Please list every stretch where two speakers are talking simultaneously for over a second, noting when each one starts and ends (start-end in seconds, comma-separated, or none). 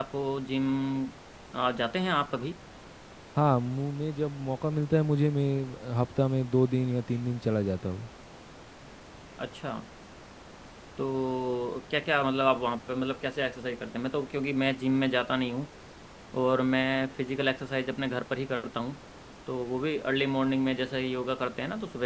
none